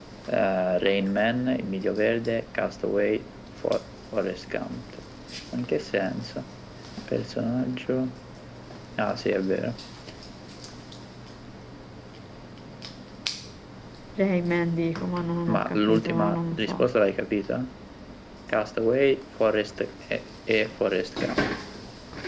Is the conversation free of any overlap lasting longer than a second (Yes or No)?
No